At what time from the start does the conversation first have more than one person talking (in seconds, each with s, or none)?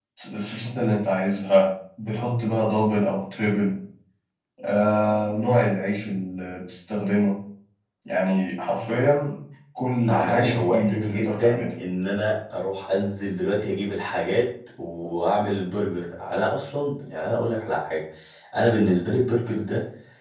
10.1 s